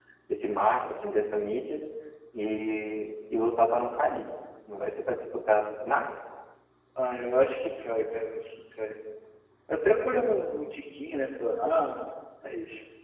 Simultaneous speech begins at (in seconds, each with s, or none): none